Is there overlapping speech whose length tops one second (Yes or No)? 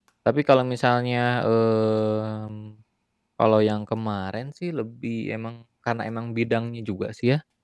No